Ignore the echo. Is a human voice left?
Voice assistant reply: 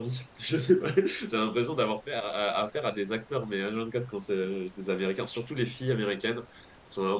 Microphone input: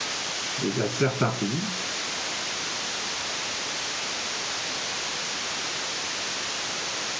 Yes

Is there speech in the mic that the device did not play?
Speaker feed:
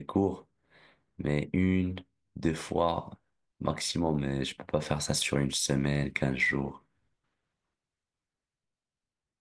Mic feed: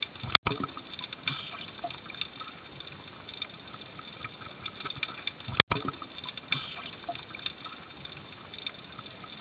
No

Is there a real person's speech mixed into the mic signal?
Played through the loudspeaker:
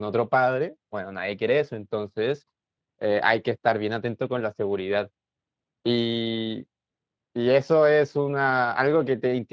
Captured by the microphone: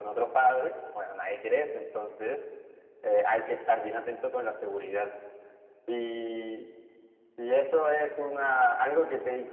No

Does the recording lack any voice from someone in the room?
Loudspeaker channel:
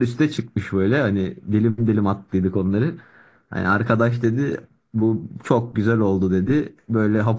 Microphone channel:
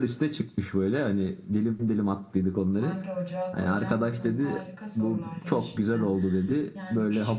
No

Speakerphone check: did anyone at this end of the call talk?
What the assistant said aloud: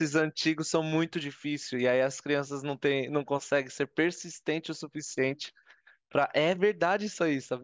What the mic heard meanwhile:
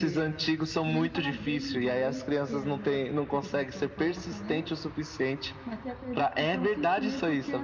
Yes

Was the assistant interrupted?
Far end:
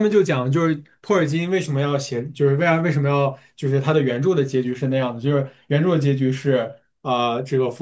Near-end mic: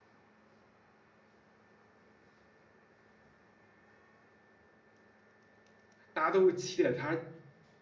Yes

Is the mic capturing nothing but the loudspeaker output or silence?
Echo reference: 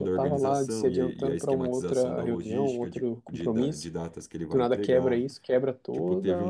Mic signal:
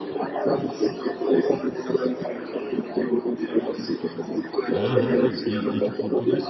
No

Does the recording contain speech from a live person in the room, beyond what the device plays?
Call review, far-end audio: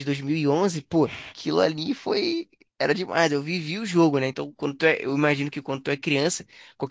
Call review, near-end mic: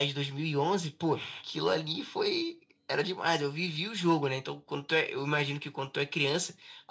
No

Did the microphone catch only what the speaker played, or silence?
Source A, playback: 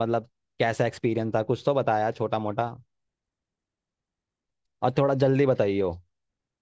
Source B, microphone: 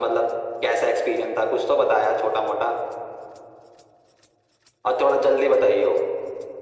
Yes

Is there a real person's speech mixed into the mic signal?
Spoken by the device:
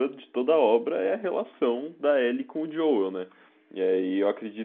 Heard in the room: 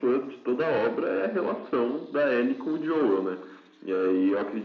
No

